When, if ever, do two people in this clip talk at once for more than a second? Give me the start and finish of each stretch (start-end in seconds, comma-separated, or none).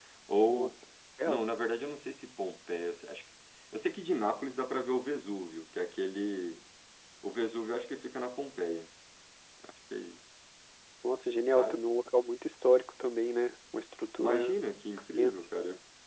none